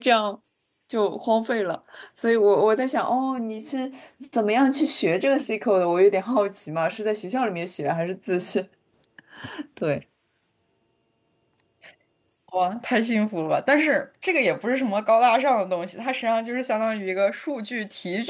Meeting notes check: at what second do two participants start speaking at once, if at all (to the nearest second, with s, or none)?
none